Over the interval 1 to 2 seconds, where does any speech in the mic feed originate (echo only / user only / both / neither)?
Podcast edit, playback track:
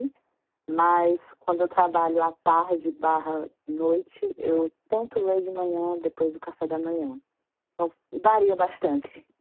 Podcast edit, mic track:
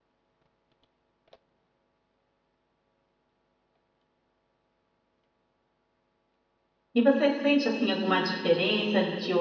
neither